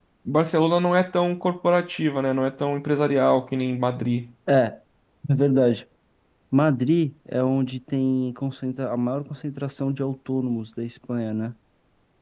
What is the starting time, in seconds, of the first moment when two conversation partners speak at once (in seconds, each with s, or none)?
none